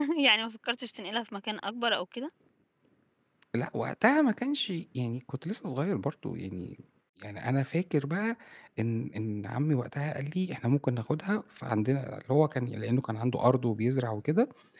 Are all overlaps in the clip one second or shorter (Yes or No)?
Yes